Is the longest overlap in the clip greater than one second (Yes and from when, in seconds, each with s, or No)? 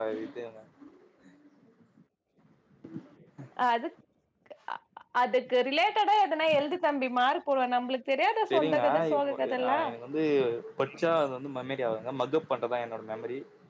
Yes, from 8.5 s